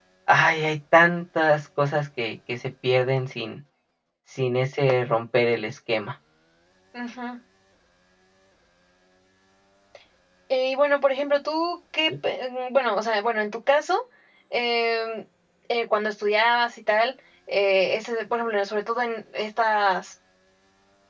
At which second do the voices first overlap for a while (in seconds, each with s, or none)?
none